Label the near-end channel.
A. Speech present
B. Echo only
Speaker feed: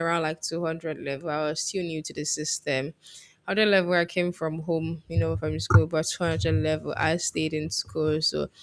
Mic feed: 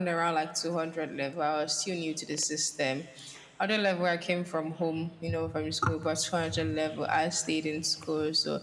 B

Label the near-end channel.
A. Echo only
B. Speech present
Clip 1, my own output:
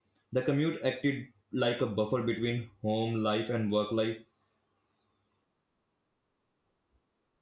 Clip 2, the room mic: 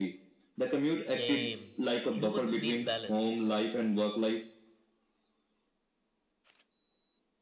B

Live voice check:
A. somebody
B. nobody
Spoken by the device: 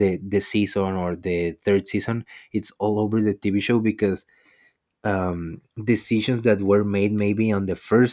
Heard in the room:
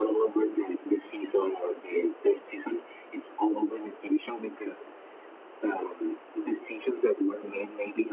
B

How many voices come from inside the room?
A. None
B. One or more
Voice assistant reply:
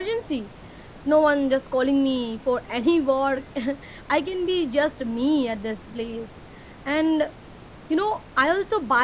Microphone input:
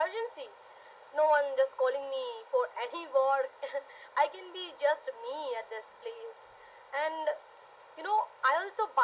A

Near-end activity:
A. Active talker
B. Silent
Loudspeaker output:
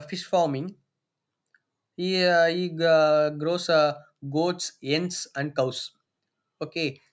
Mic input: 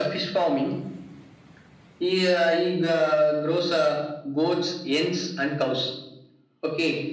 B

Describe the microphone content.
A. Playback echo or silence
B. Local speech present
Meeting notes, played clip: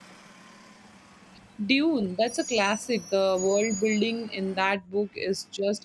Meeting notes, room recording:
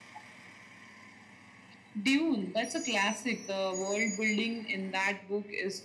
A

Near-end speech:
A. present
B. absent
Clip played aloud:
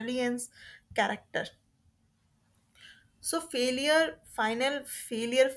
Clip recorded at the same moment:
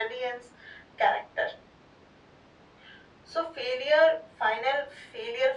B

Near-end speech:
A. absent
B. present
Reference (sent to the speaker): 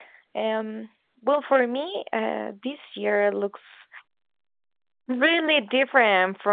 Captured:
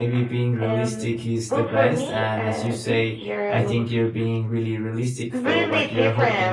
B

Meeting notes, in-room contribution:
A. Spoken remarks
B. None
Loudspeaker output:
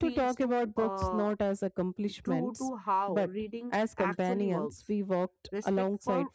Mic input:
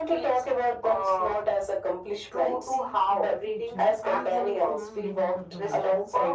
A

